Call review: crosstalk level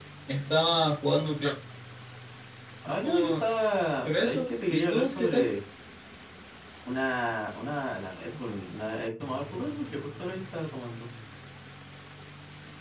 present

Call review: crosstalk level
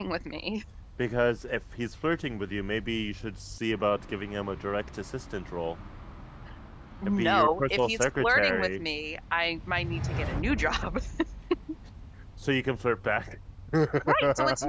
present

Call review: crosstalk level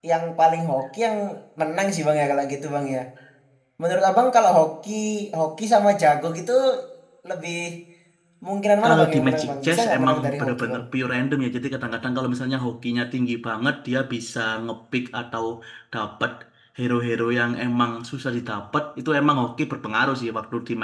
present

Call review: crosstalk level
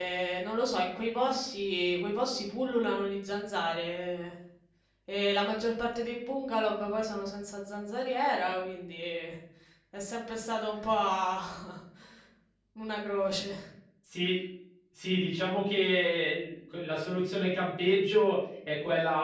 none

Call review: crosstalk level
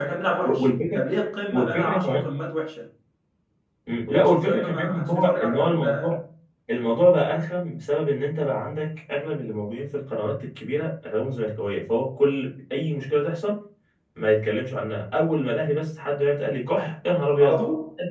present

